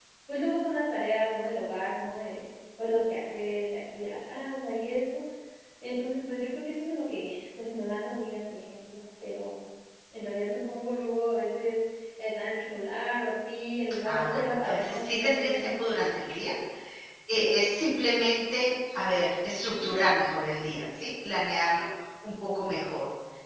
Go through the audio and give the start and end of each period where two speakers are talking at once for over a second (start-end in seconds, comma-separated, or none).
14.1-15.8